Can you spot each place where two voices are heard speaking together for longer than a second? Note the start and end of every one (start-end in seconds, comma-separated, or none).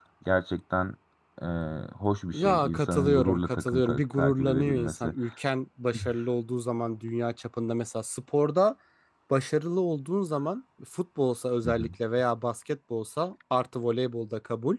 2.3-5.1